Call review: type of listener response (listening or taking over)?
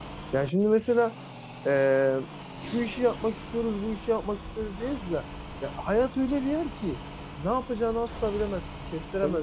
taking over